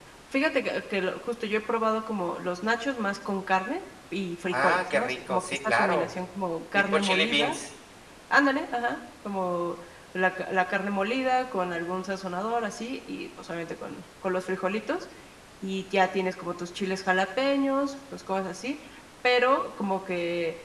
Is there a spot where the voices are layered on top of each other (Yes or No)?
Yes